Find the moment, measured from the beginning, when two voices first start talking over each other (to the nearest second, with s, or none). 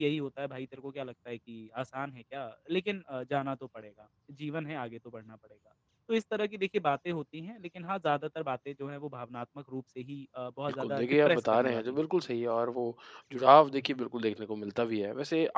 11 s